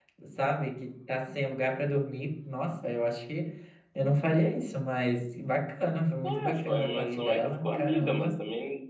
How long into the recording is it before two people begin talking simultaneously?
6.2 s

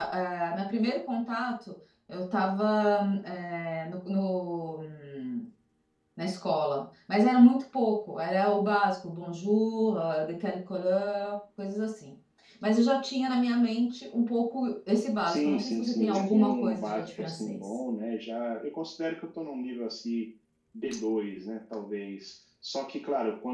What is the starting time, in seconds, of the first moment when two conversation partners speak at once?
15.2 s

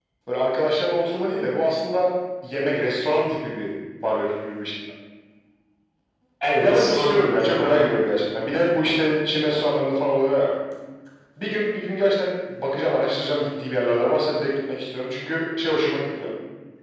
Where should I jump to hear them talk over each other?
6.6 s

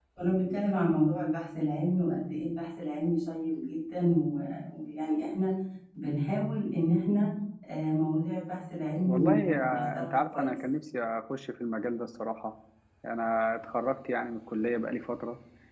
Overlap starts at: 9.0 s

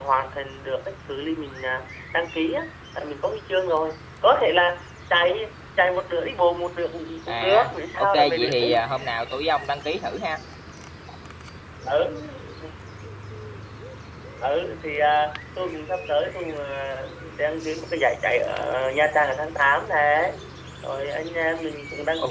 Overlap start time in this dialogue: 7.3 s

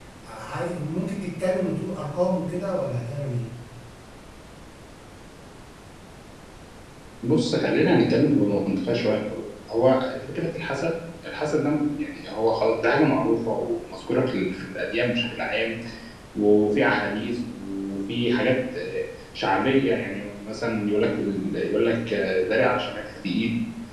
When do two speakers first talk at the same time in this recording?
none

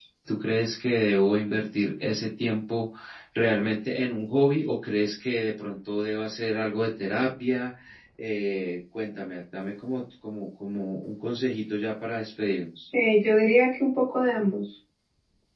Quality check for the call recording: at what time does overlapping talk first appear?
none

